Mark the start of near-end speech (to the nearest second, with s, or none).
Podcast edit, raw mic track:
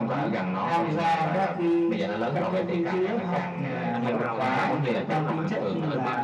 4 s